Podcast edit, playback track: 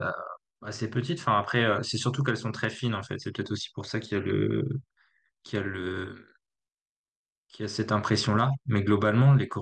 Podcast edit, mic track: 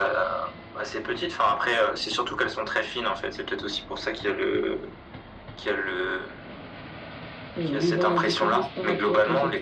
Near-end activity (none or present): present